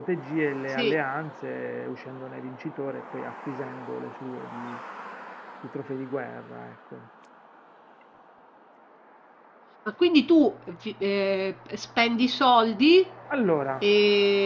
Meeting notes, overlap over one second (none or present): none